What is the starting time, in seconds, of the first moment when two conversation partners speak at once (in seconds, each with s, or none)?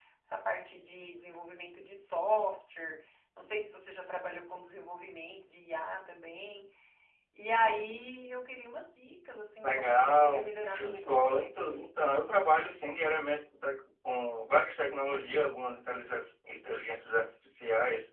9.6 s